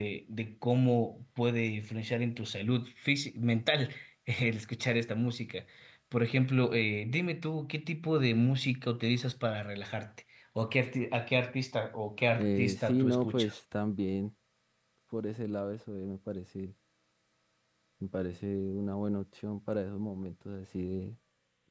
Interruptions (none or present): present